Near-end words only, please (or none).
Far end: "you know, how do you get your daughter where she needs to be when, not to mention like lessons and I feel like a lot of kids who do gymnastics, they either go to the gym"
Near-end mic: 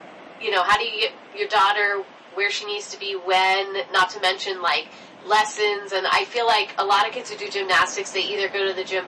none